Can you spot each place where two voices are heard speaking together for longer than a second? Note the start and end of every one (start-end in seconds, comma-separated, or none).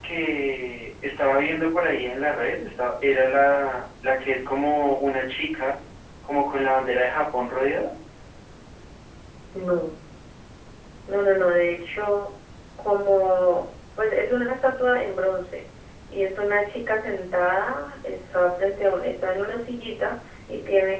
none